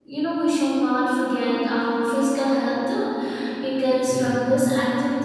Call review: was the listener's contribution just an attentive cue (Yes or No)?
Yes